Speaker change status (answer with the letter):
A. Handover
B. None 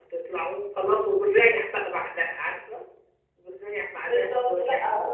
A